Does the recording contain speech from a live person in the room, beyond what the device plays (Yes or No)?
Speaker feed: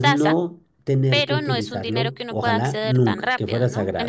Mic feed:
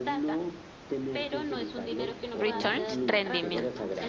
Yes